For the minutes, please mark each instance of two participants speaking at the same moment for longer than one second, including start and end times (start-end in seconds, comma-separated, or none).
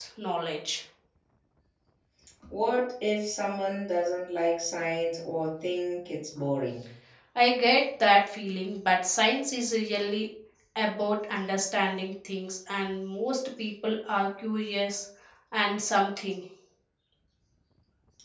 none